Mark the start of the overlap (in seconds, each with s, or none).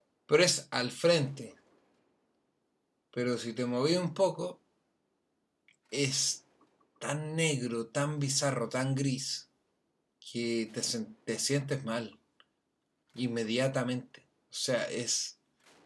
none